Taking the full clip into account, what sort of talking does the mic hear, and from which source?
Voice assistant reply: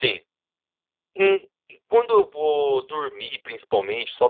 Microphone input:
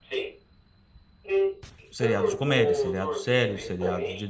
both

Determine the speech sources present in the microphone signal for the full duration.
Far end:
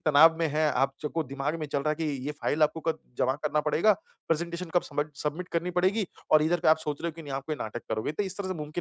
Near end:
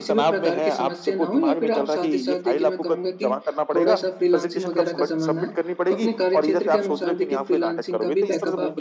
both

